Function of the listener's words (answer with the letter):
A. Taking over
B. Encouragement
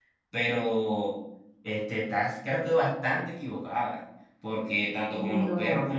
B